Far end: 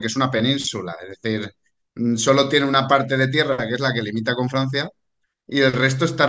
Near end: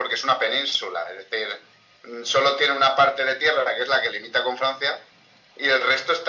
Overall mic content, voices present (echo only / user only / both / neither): echo only